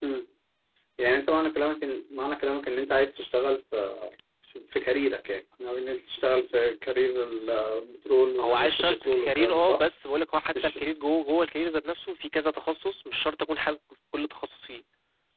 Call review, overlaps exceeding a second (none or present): present